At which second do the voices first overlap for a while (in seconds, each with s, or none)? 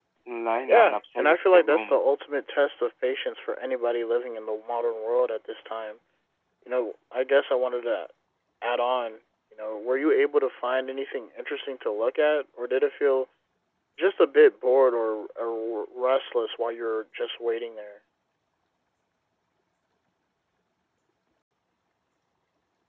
0.7 s